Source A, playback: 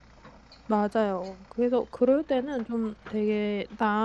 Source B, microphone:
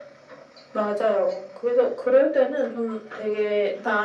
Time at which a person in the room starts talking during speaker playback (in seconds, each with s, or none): none